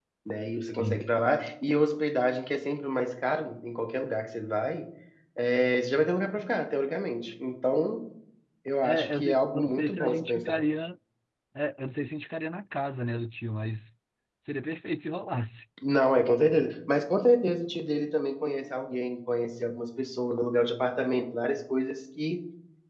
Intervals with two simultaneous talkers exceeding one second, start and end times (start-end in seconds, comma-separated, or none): 8.8-10.6